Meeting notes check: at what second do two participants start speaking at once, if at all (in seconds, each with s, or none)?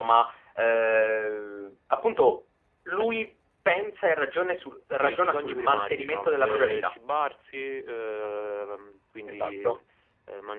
5.0 s